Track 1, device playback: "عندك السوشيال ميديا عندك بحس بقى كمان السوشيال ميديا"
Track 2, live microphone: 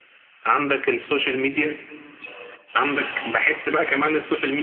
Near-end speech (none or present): none